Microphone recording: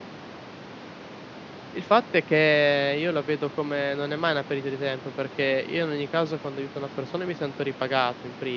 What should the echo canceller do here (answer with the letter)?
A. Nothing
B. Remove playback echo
A